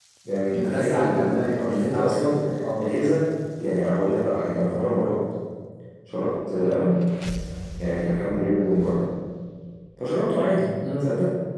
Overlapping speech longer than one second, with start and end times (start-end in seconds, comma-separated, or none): 0.5-2.4